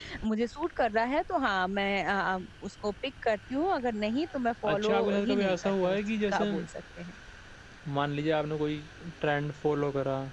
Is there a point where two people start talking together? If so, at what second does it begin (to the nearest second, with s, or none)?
5 s